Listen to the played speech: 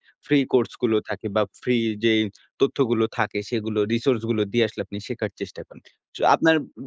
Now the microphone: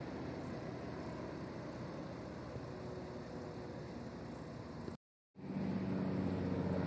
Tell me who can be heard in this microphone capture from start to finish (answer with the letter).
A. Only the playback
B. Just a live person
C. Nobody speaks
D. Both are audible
C